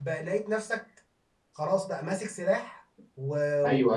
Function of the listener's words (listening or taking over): taking over